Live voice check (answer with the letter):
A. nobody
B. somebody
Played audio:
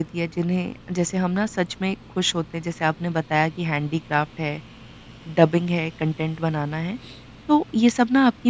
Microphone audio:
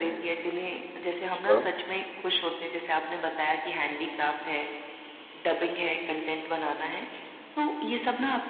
B